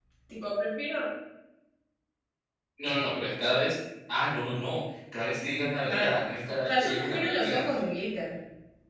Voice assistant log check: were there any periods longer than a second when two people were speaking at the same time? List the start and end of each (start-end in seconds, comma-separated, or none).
6.6-7.9